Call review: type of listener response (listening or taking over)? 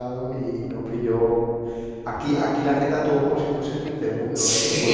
listening